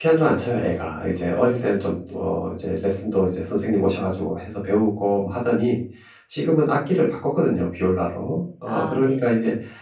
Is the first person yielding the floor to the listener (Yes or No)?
No